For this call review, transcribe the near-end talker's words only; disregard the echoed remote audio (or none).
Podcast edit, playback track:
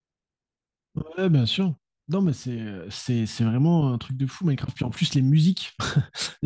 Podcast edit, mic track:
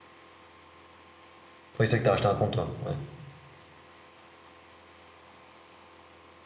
Oui, c'est vrai que t'as acheté un compte, toi. Ouais.